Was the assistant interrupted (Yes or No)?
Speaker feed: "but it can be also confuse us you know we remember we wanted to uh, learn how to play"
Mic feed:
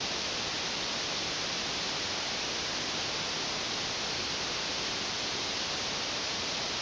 No